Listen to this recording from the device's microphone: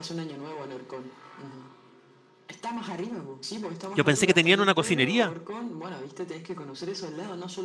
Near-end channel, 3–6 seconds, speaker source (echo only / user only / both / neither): both